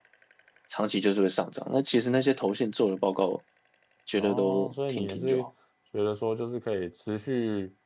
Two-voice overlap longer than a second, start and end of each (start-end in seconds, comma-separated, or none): 4.1-5.4